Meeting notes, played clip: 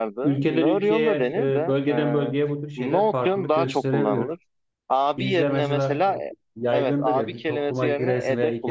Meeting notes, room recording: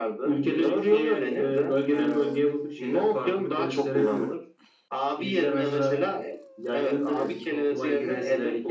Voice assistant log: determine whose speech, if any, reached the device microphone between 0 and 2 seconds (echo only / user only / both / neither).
echo only